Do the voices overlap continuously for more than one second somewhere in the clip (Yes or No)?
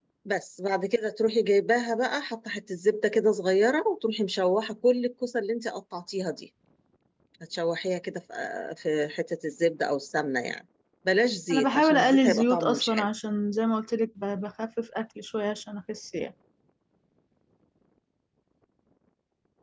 Yes